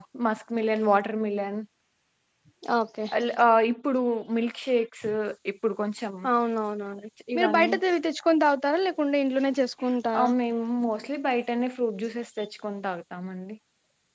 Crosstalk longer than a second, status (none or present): none